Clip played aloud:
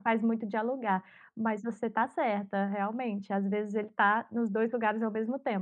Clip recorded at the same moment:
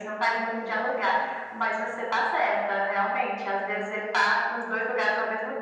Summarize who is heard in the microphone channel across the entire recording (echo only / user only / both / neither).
echo only